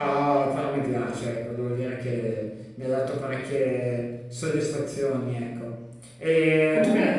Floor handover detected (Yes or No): No